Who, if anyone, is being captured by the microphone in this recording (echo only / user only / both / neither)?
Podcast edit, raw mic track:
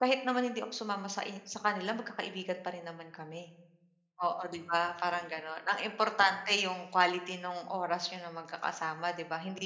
user only